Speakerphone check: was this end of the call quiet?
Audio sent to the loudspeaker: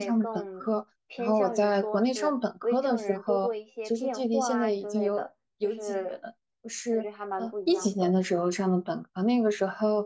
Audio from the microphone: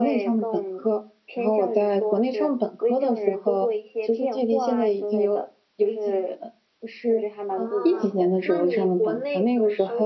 No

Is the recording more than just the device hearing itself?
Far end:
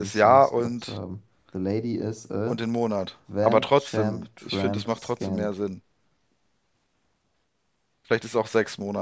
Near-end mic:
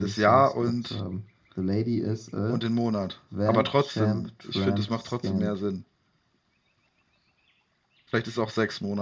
No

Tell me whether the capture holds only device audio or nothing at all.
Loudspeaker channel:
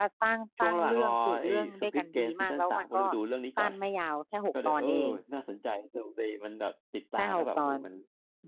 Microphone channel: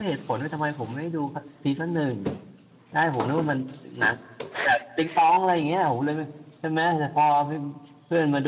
No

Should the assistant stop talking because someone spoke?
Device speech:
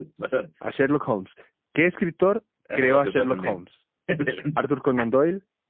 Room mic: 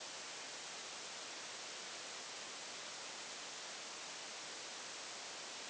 No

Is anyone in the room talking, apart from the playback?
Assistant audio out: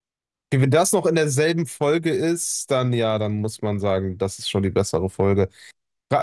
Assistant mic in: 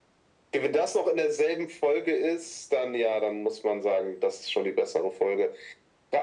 No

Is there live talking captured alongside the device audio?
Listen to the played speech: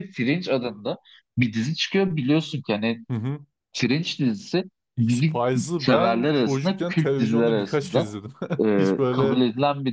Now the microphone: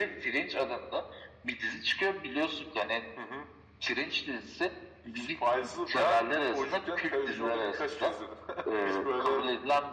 No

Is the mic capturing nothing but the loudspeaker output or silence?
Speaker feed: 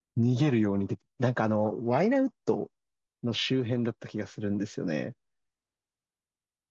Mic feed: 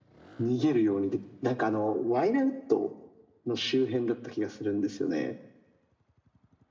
Yes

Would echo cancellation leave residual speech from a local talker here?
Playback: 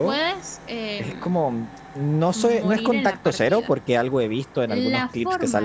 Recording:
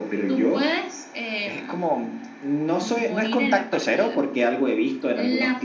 No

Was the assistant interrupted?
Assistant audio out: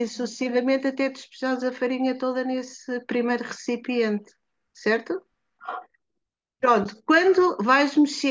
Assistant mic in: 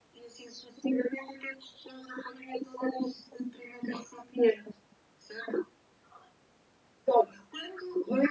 No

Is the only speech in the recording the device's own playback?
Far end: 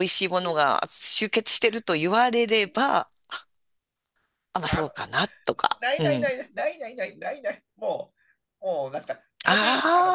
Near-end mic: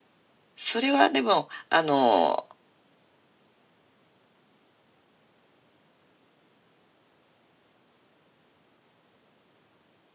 No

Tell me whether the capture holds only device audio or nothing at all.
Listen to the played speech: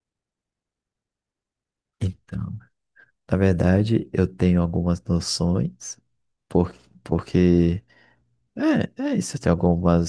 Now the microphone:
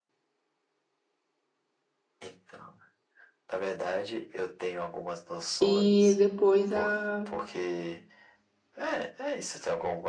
No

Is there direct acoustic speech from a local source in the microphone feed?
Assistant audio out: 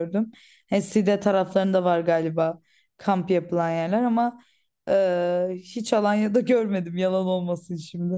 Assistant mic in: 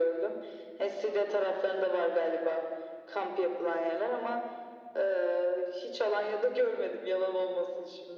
No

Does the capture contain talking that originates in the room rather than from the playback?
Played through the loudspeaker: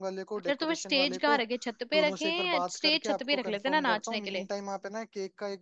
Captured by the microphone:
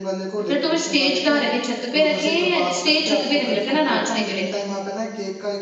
No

